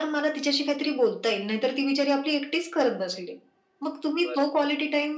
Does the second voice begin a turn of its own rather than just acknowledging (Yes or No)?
No